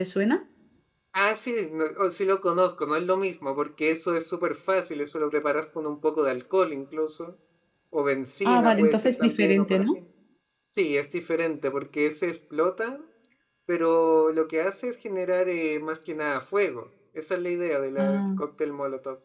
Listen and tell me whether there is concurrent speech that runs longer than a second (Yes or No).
Yes